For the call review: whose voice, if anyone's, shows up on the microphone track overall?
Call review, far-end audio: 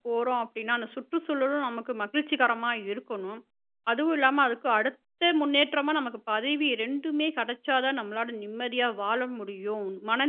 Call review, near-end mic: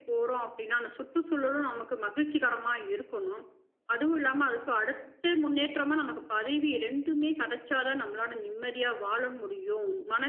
echo only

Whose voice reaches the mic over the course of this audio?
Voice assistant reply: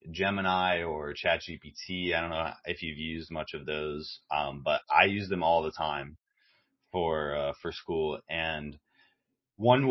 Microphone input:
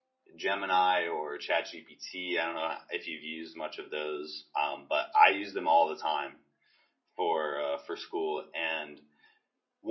echo only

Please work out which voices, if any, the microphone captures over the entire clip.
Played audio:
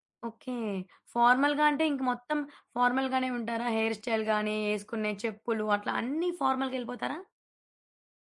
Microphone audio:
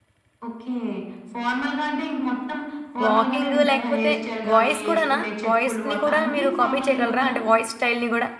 both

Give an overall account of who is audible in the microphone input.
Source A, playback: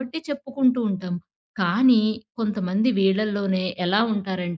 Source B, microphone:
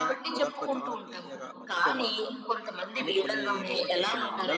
both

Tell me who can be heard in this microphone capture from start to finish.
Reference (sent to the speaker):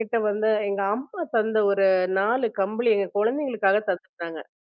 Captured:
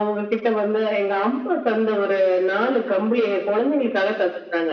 echo only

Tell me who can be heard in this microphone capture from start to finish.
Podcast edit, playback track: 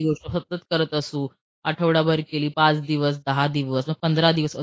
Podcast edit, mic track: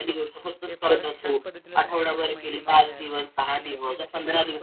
both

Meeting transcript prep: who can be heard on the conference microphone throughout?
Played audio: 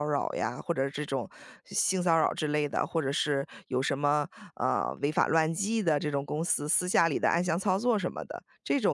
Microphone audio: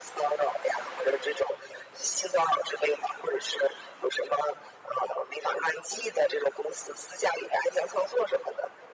echo only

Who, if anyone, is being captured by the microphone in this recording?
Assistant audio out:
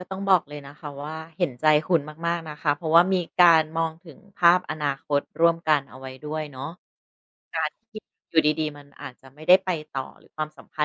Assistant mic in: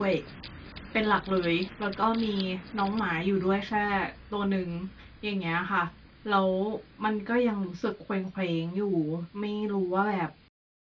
user only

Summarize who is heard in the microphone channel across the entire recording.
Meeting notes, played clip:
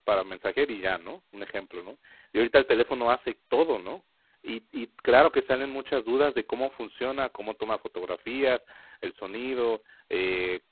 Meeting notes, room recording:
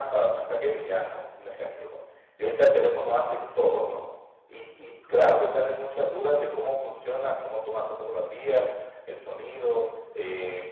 echo only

